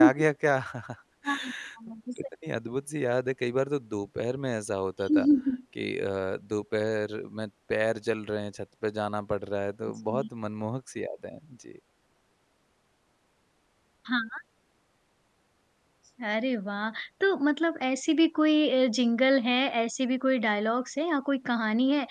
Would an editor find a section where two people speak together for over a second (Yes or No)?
No